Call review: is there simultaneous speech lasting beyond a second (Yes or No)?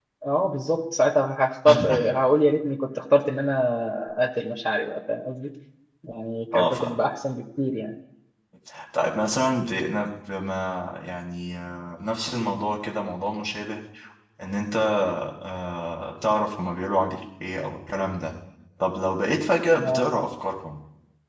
No